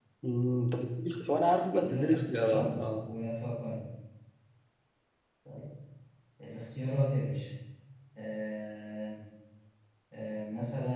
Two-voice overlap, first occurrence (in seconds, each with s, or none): 1.8 s